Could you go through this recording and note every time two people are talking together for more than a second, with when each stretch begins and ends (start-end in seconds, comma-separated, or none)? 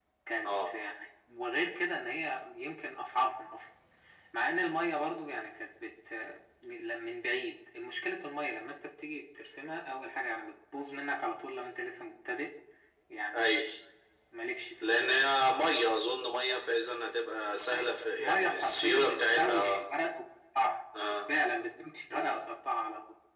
18.2-19.8